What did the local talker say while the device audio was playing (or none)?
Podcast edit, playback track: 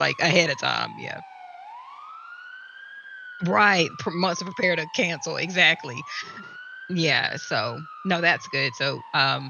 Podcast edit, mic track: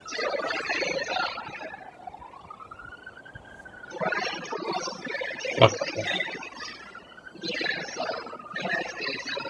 Okay. Yeah.